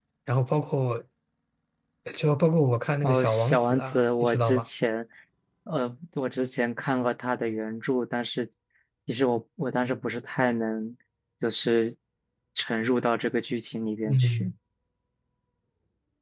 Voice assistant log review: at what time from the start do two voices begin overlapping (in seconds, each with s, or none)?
3.0 s